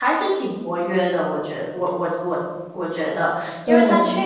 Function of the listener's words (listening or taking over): listening